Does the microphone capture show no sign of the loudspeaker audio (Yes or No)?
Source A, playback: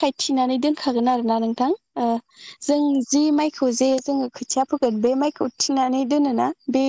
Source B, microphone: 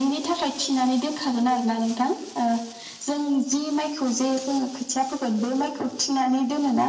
No